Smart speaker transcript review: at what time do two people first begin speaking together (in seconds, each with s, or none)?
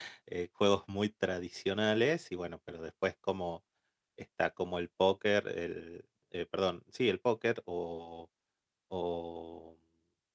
none